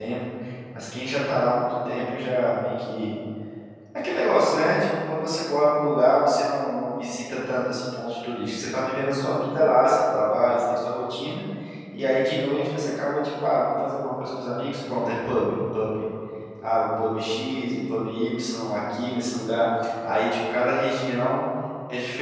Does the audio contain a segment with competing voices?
No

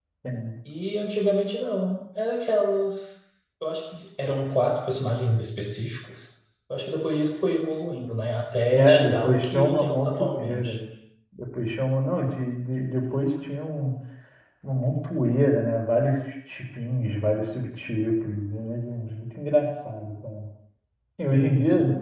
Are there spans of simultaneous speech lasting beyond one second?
Yes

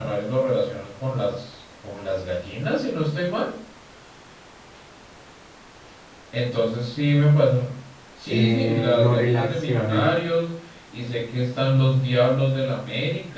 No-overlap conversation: No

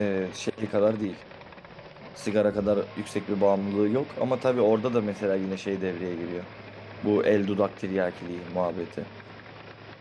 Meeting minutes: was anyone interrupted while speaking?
No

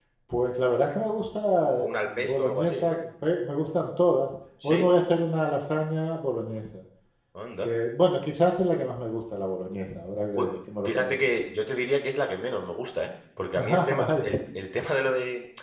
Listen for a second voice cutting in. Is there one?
Yes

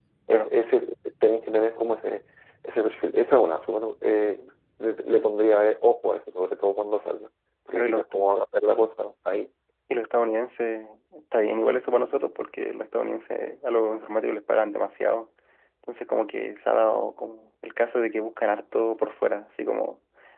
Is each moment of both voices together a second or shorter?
Yes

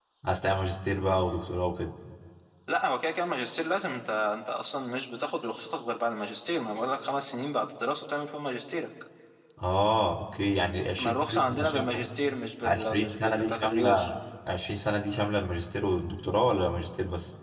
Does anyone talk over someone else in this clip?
Yes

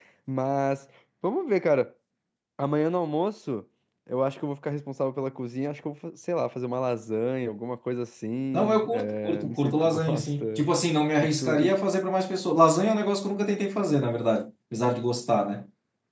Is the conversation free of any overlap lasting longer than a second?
No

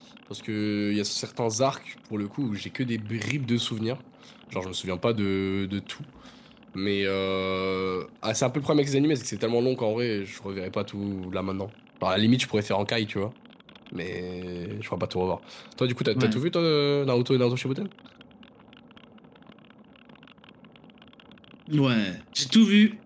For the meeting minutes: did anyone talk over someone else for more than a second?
No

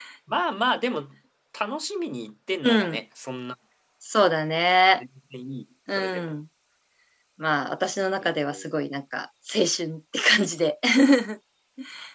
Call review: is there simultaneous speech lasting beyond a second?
No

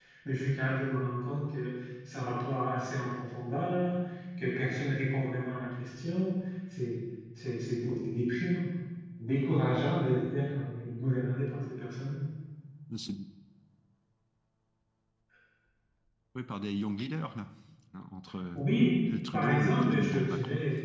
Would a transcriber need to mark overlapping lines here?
Yes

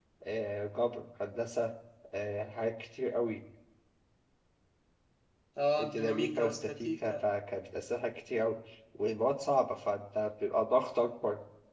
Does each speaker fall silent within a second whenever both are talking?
No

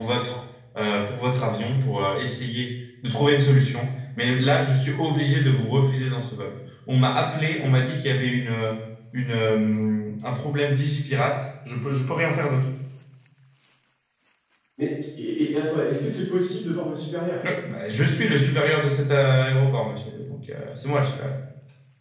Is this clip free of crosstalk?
Yes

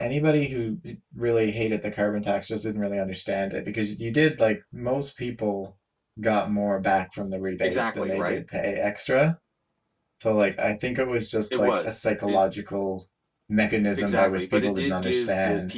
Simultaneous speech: Yes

